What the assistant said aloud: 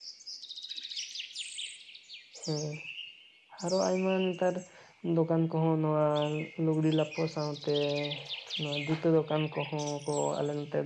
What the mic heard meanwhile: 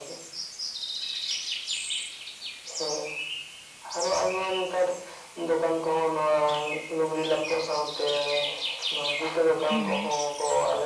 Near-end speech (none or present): present